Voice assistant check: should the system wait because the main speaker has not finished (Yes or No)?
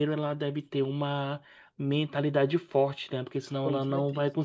Yes